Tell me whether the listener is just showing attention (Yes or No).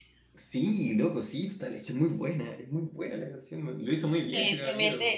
No